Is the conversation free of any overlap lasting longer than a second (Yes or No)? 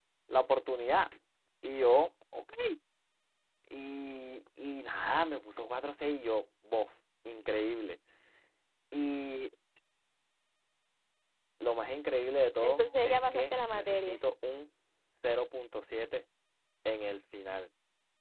No